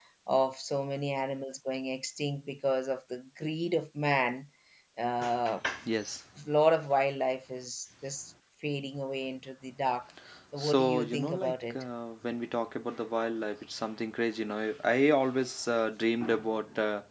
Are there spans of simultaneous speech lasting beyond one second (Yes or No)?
Yes